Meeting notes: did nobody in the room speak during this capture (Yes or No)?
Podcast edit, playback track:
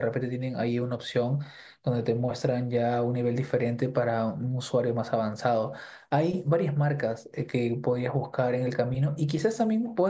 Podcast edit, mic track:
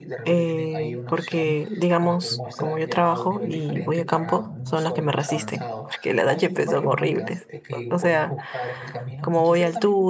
No